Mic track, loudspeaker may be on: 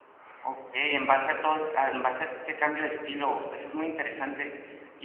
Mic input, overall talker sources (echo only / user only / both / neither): user only